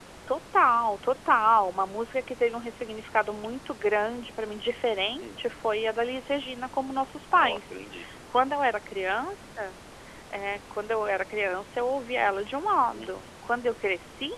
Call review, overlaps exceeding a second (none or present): none